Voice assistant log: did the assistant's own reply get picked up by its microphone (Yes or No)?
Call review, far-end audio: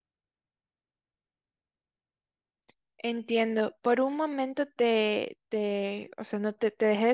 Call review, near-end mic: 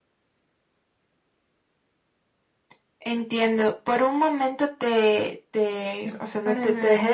Yes